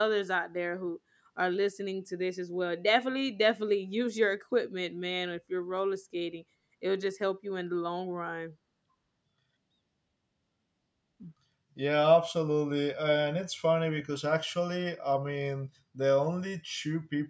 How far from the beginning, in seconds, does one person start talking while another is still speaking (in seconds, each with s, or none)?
none